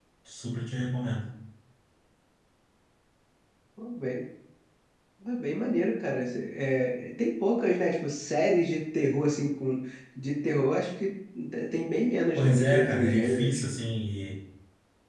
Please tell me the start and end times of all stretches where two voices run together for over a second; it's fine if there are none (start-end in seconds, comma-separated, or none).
12.3-13.6